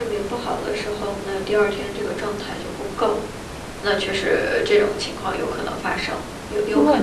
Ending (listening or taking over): taking over